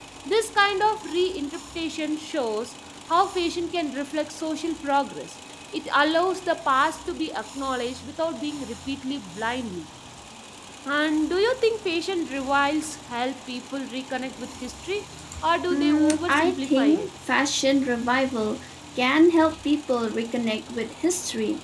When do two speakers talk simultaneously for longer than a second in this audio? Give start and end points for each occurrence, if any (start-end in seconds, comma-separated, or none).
15.7-17.1